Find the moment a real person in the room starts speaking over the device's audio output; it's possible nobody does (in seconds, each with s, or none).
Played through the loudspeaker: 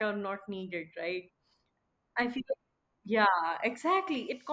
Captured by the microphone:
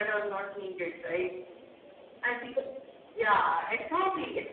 none